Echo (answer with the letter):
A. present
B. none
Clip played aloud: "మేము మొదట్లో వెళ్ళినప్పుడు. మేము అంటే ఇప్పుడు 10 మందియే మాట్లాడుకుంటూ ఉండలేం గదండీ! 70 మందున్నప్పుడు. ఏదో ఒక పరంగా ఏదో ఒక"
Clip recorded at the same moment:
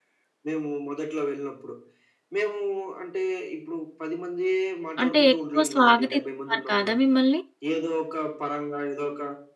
A